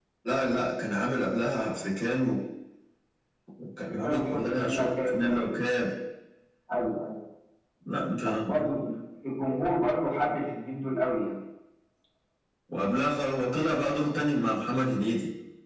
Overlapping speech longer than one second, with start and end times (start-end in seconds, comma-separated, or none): 3.9-5.6